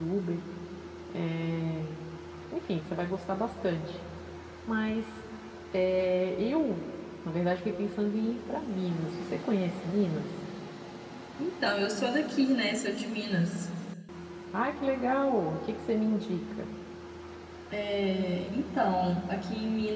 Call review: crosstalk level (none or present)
none